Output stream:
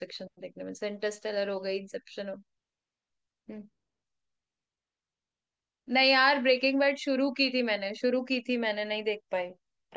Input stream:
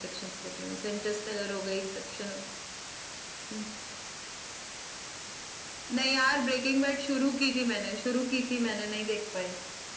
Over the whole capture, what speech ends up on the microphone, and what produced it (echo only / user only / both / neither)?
echo only